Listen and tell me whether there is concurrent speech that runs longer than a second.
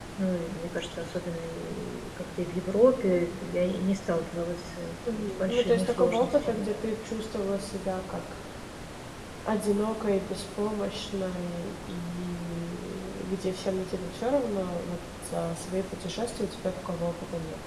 Yes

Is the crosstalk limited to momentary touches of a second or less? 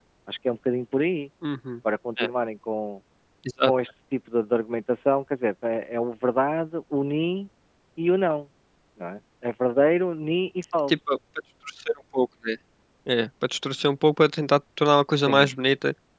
Yes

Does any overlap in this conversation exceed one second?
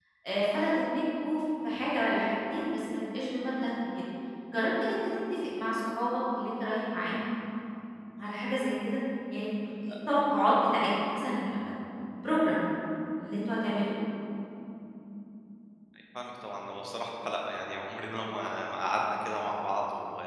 No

